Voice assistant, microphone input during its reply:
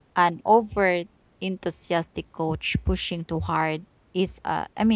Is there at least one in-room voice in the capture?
Yes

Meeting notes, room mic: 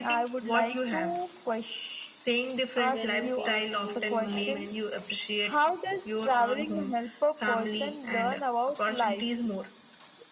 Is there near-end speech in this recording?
Yes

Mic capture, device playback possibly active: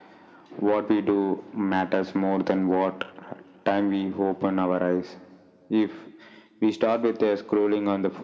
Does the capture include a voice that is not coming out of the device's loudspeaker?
No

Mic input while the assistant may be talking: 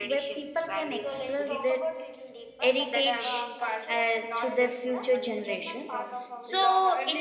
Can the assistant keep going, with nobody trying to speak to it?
No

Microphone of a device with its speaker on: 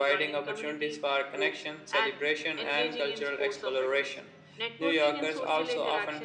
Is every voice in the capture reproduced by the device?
Yes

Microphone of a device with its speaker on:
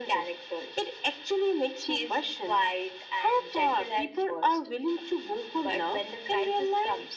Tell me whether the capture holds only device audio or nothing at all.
Yes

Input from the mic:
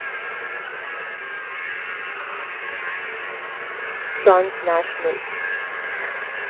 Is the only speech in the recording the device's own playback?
No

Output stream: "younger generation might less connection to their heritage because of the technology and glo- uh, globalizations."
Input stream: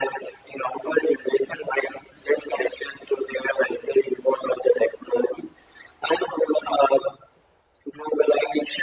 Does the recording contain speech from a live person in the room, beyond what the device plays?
No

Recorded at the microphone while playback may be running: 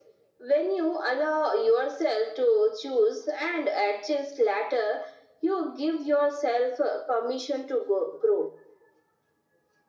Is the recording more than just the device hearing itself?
No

